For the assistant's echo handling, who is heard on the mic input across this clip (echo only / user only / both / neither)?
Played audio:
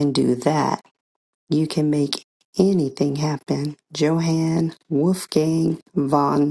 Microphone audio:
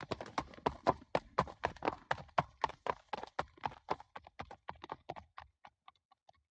neither